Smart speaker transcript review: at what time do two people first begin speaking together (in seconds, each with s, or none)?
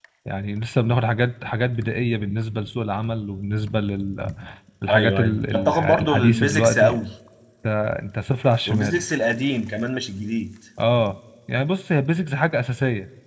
4.9 s